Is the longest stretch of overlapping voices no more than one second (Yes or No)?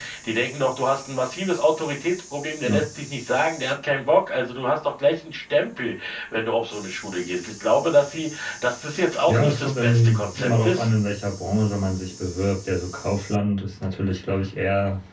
No